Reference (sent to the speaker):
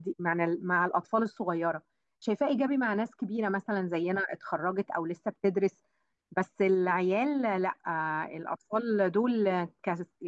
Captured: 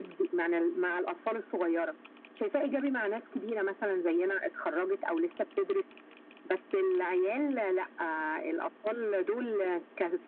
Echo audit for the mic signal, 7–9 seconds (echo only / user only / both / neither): echo only